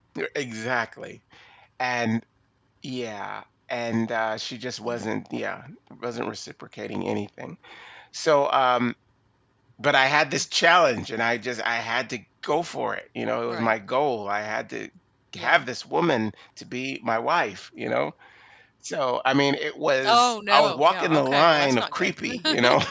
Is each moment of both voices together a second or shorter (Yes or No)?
No